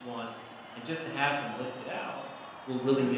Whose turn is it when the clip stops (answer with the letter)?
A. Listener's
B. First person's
B